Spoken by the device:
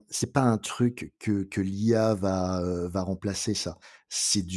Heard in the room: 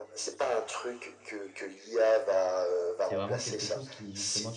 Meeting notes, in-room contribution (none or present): present